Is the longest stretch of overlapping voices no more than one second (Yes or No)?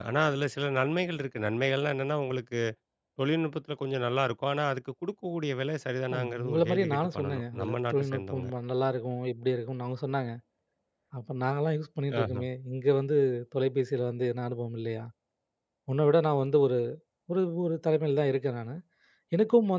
No